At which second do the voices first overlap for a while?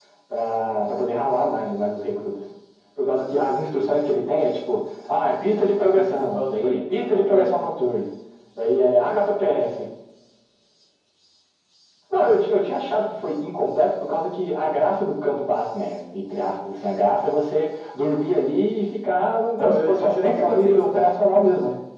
5.8 s

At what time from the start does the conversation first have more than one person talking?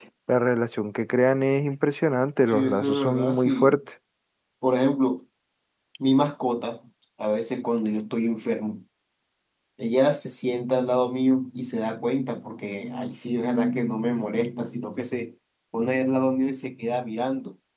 2.5 s

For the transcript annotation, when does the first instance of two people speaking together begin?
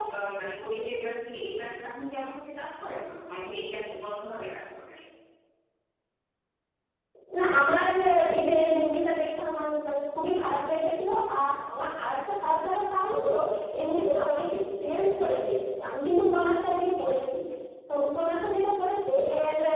none

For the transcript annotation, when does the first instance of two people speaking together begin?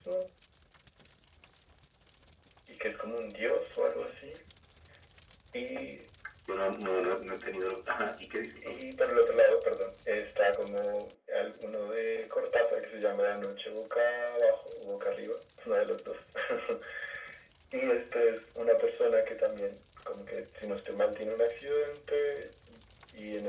none

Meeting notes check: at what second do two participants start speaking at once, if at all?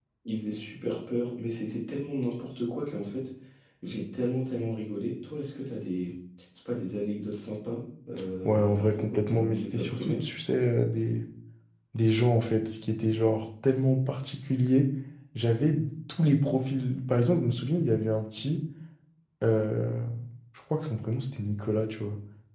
8.4 s

